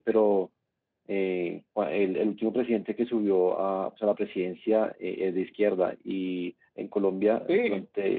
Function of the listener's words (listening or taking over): listening